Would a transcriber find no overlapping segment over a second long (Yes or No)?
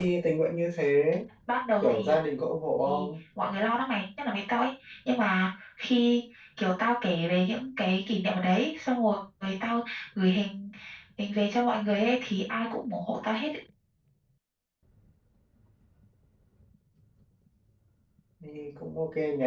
Yes